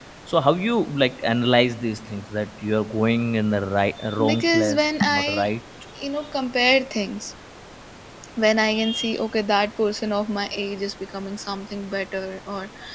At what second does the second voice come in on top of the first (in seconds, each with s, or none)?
4.3 s